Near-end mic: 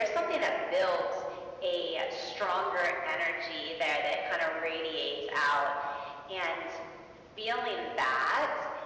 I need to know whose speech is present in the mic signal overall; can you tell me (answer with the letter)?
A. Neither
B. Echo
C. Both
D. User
B